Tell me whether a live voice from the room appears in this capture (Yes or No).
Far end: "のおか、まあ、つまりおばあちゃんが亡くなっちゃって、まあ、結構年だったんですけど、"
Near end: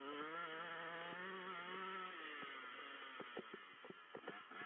No